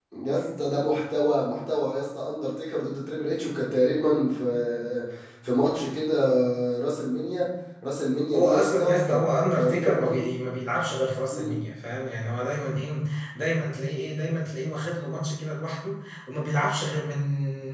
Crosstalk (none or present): present